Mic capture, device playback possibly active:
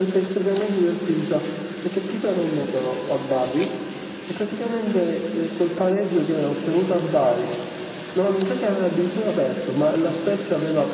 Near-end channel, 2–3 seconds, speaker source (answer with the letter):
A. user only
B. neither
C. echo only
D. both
C